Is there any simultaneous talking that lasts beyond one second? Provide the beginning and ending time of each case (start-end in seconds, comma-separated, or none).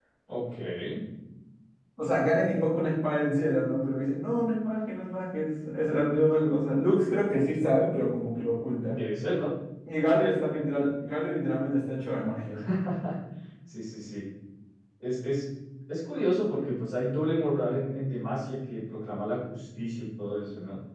none